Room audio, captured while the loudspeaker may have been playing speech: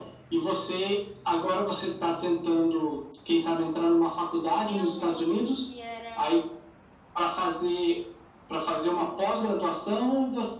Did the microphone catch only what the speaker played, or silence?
No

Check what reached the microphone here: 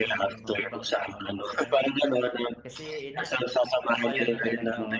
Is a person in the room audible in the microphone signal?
Yes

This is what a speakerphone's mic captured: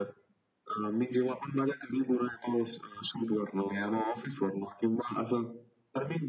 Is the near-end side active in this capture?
No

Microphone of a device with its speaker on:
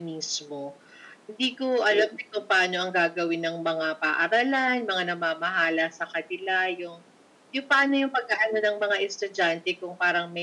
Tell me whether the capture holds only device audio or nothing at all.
Yes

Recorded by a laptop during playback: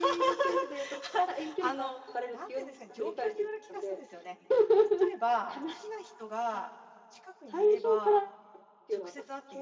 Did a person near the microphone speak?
Yes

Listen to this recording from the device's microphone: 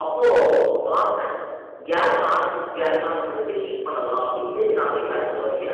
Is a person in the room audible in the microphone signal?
Yes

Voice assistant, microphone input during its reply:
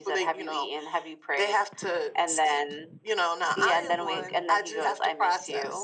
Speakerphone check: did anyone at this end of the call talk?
No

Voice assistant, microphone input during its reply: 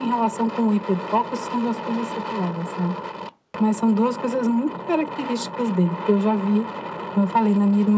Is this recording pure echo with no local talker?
Yes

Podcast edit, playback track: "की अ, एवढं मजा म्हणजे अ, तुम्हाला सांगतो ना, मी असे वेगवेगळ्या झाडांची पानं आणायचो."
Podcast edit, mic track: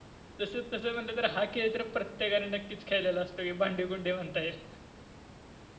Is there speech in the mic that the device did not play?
Yes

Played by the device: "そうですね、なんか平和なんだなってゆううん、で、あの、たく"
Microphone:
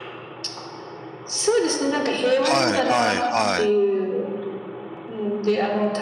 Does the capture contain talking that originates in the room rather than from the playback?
Yes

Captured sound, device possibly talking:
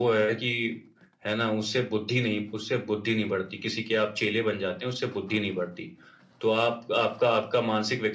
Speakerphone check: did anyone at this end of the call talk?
No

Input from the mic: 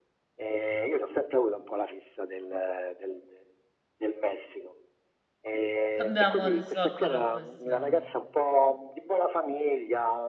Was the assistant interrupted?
Yes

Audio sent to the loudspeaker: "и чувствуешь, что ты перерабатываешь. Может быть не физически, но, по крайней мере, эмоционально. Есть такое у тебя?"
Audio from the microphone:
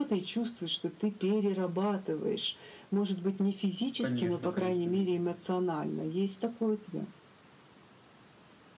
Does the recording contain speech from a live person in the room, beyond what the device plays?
Yes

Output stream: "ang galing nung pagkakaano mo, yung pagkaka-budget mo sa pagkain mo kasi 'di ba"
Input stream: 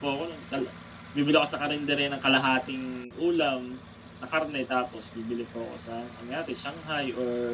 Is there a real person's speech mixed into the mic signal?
Yes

